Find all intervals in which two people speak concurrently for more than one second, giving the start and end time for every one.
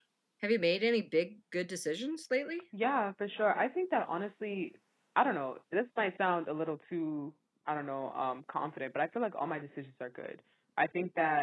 none

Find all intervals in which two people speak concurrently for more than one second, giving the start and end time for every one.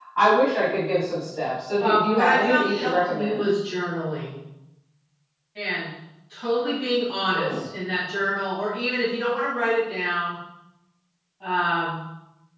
1.8-3.4

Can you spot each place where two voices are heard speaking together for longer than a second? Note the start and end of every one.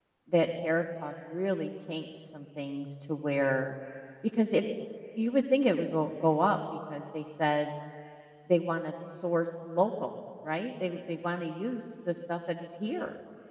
none

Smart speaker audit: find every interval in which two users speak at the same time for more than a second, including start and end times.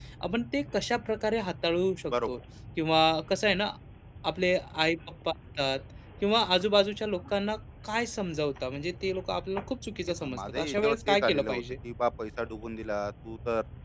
10.2-11.6

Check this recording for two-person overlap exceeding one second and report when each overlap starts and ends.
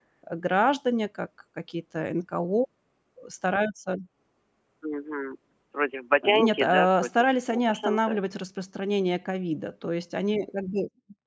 6.2-8.2

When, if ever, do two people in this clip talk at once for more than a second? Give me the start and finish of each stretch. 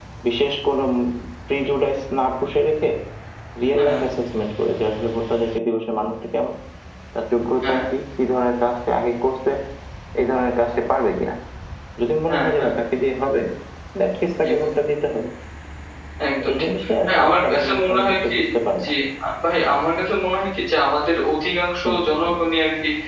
16.5-18.4

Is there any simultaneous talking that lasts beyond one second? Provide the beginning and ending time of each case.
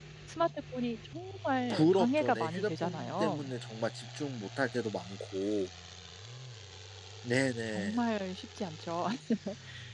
1.7-3.4

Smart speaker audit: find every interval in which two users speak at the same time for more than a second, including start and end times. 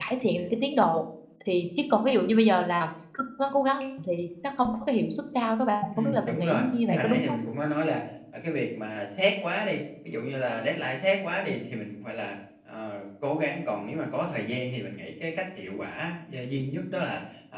6.0-7.4

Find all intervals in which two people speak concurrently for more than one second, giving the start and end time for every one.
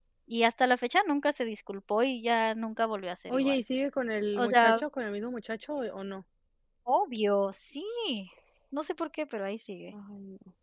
none

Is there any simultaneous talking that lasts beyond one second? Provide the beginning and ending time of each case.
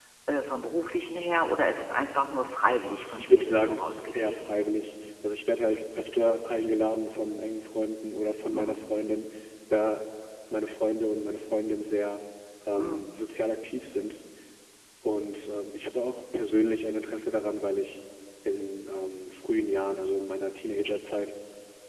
3.2-4.5

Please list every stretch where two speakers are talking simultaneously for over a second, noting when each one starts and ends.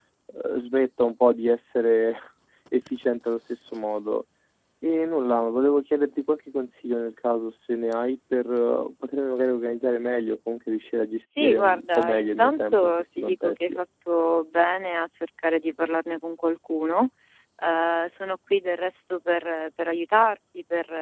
11.4-13.8

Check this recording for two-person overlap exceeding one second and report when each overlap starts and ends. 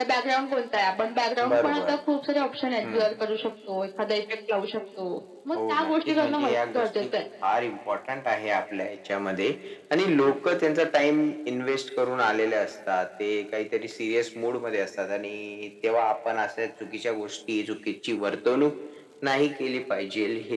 5.5-7.1

